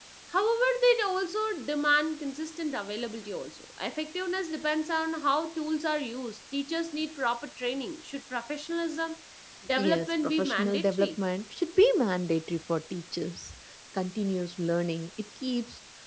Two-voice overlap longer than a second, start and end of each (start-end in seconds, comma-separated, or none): 9.8-11.2